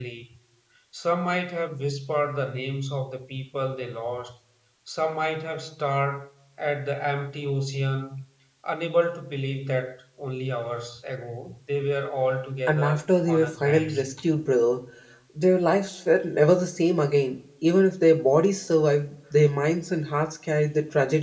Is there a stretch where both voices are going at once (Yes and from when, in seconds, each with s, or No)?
Yes, from 12.7 s